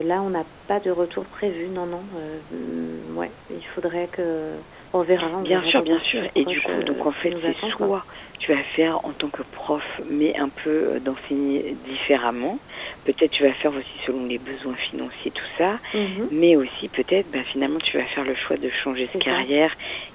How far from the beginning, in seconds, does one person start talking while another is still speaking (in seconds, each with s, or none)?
5.4 s